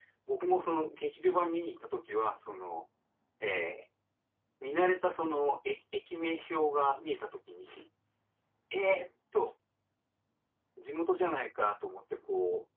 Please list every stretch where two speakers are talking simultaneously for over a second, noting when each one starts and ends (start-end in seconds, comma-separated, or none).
none